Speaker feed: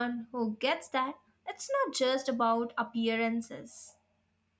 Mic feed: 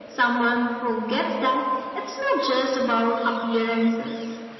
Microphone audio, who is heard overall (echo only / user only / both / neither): echo only